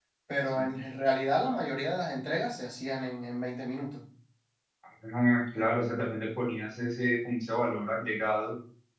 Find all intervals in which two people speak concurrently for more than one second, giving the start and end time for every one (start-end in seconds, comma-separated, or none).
none